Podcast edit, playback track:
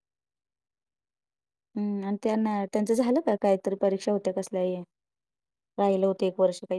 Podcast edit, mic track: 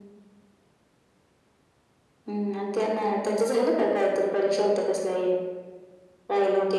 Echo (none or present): present